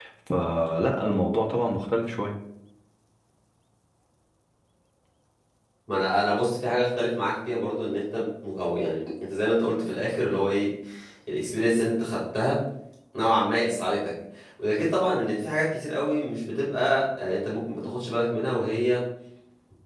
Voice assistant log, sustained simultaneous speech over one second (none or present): none